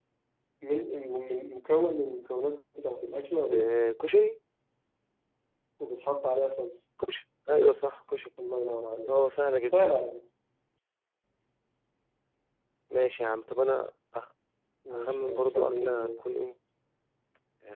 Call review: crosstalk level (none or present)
present